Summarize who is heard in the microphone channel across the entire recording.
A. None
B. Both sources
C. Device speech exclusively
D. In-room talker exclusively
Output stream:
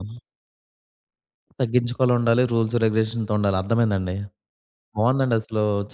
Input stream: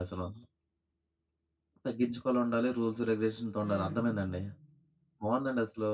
B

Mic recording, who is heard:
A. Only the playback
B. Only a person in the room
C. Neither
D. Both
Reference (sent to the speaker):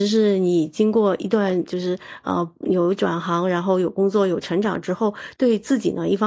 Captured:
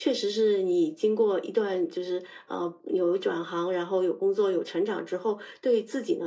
A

